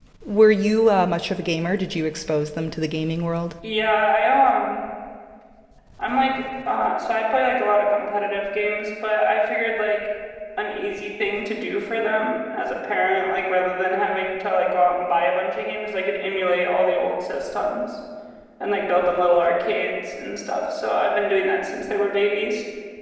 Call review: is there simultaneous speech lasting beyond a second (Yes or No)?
No